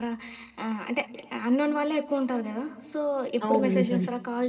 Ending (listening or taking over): listening